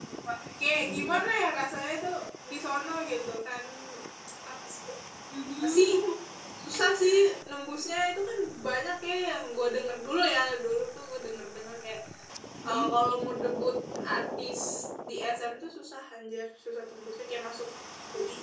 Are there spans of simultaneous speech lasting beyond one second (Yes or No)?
No